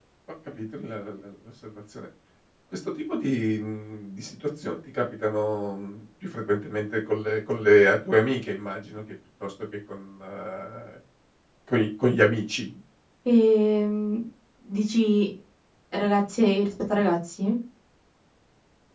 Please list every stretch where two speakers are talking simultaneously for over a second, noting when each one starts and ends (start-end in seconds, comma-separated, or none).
none